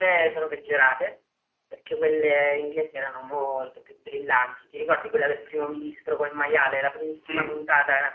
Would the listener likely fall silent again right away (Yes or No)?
Yes